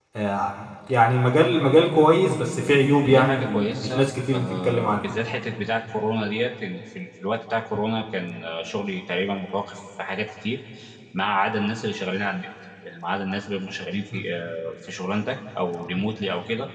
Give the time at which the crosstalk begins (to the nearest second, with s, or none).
3 s